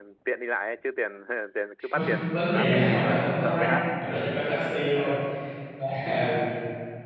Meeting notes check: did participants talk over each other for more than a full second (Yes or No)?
Yes